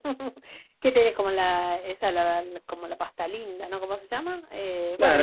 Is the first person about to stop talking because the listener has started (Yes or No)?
Yes